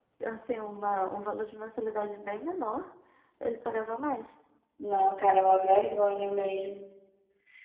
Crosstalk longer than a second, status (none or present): none